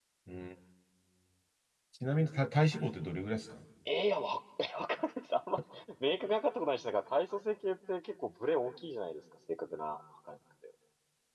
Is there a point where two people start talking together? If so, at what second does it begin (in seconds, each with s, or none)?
none